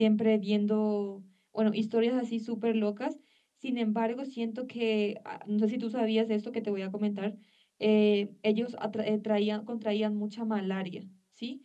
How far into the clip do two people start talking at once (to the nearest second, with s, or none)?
none